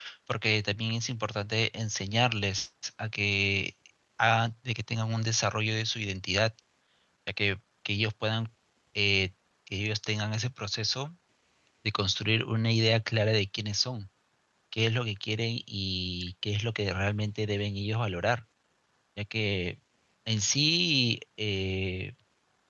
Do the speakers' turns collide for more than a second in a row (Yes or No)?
No